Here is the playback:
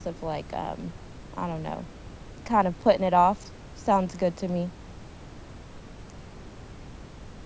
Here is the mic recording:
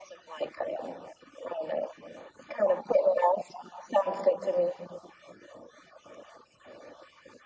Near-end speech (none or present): none